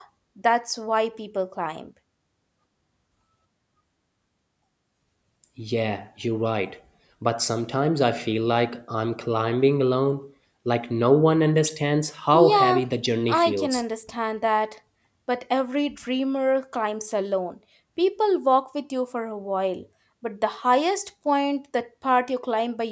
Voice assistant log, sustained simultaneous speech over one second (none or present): none